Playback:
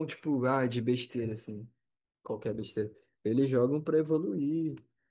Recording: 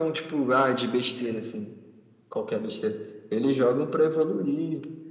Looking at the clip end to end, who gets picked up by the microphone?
echo only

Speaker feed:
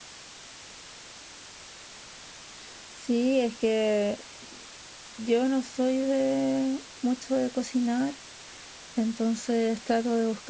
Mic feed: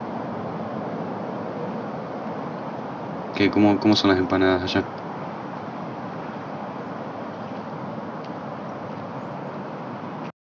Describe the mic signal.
user only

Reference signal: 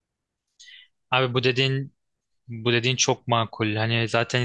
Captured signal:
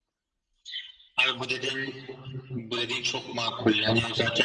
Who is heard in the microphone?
echo only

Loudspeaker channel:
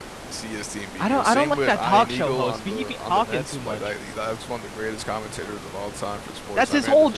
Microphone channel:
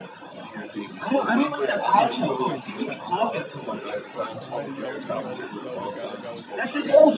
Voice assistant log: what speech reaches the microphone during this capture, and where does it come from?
both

